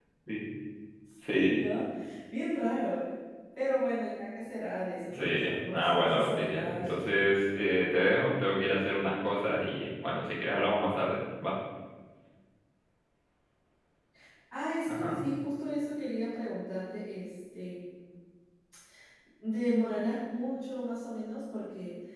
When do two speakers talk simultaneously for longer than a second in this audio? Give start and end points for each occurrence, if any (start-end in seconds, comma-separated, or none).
5.1-7.3